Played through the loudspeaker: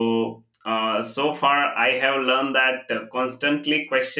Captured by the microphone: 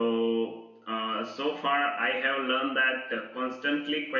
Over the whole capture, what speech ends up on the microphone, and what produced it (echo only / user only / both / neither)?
echo only